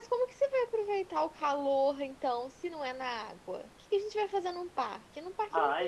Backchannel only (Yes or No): No